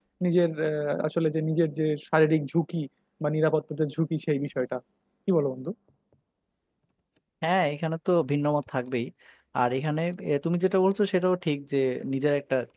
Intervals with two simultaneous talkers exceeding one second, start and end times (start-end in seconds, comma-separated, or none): none